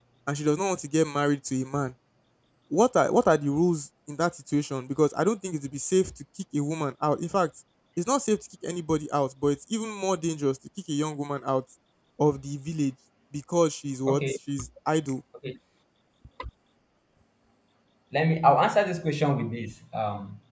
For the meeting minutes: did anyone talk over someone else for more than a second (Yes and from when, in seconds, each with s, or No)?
No